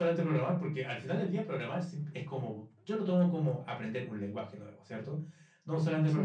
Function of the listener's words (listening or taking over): listening